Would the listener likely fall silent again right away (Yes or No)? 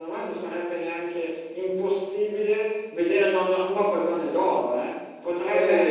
No